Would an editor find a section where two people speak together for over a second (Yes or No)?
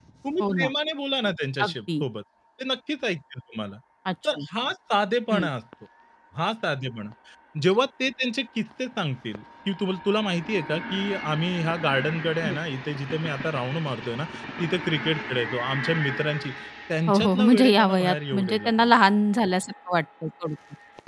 Yes